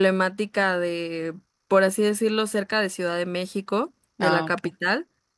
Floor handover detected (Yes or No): No